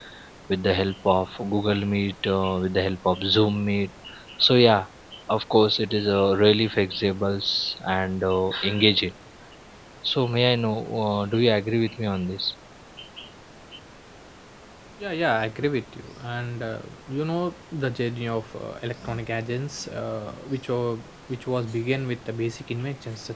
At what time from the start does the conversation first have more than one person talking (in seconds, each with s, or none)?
none